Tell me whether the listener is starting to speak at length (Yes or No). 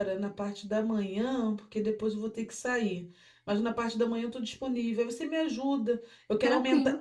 No